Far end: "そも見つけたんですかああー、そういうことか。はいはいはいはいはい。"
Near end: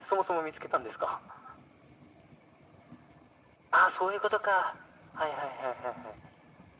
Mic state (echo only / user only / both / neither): echo only